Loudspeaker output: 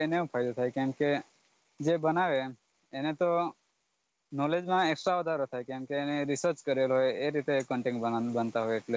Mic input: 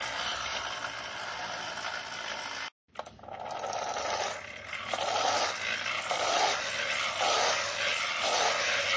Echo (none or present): none